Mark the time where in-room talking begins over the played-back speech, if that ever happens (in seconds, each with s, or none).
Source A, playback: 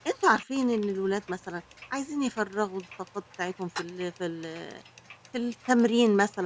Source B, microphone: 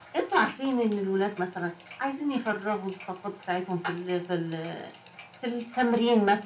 none